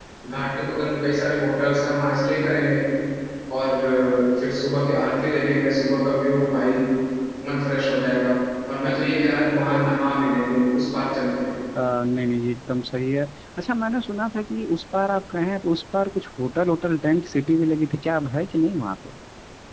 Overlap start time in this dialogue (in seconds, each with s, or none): none